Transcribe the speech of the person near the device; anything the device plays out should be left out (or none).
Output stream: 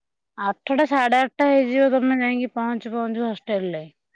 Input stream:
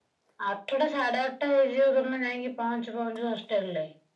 none